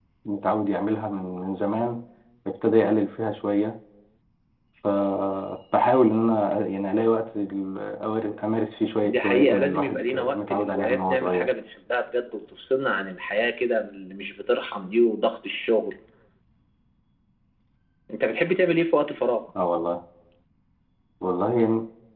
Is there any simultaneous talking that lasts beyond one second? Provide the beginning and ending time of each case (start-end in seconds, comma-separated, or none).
9.0-11.5